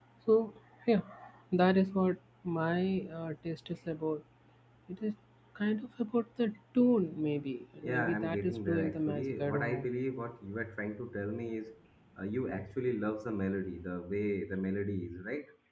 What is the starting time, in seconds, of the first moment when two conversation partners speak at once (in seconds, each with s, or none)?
7.8 s